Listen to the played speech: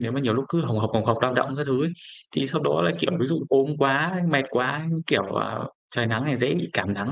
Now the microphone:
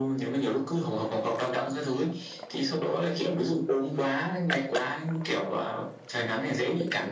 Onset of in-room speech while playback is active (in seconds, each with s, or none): none